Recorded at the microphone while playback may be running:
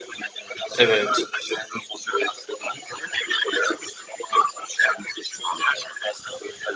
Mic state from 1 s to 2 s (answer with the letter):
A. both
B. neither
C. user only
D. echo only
A